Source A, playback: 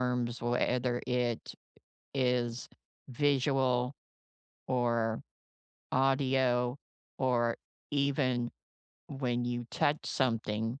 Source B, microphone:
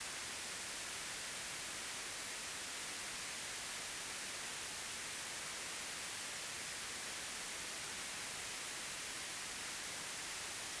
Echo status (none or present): none